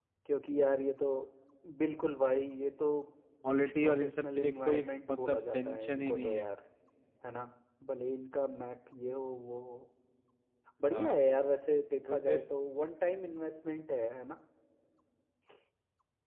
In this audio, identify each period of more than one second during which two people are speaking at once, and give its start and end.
3.8-6.5

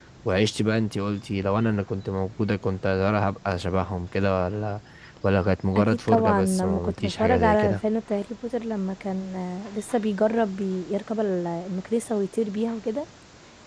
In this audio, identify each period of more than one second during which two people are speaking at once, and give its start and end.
5.8-7.8

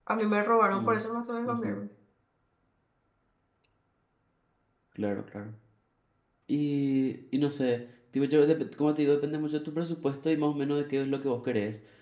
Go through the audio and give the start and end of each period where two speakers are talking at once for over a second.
none

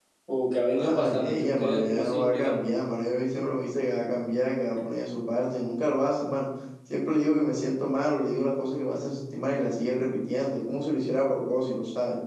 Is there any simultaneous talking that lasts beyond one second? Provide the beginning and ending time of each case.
0.7-2.6

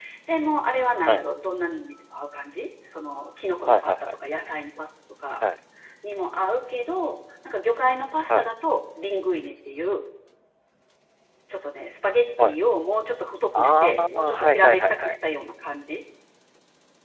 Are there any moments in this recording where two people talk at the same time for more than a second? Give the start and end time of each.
13.6-15.2

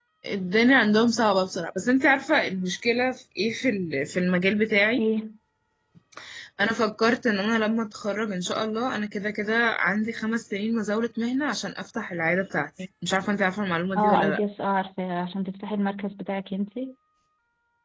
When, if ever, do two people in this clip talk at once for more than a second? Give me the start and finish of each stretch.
none

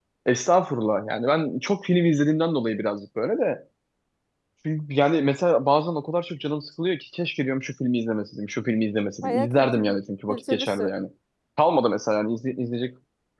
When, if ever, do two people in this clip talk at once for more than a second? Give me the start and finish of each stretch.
9.2-10.9

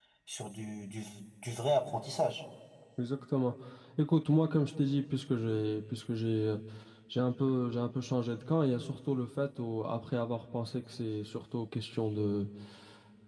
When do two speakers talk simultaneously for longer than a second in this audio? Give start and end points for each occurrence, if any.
none

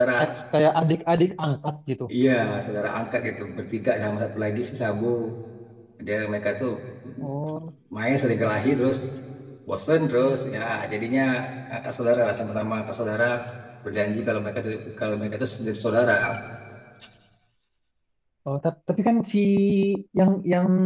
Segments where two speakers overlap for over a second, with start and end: none

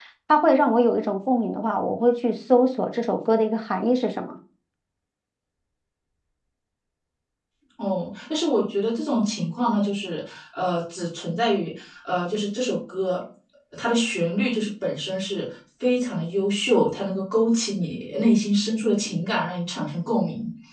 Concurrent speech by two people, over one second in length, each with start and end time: none

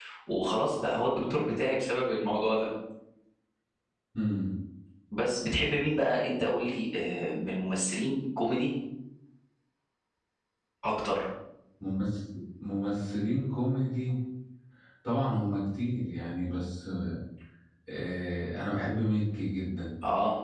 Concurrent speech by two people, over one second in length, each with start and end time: none

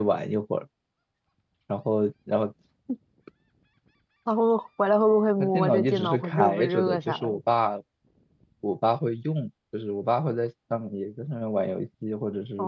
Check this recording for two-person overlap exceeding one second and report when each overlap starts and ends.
5.4-7.4

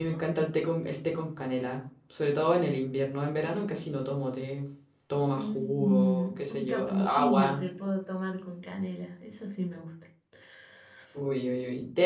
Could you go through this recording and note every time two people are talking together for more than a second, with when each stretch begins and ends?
5.3-7.6

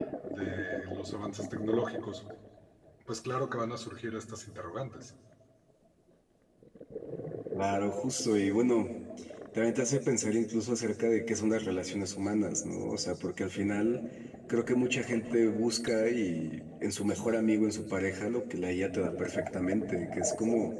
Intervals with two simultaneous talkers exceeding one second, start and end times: none

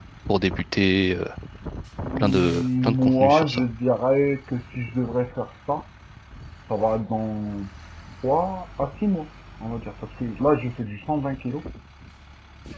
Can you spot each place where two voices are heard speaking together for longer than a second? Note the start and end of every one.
2.2-3.6

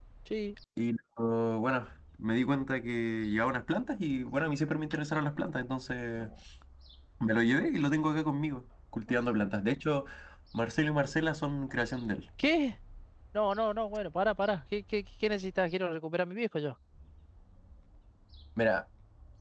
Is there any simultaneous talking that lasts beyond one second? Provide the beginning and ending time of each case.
none

